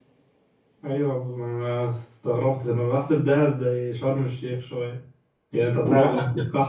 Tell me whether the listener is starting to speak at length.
No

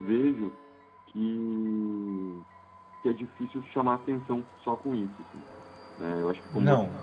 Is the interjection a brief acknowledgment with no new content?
Yes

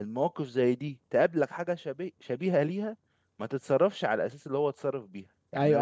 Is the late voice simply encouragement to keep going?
No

